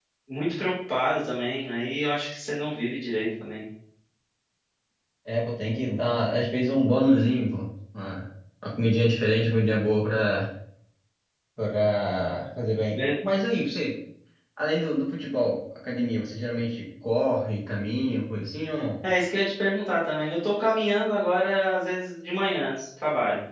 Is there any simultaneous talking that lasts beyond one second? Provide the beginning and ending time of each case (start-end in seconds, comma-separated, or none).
none